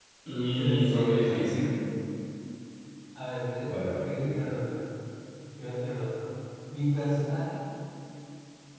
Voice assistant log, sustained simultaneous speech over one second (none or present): present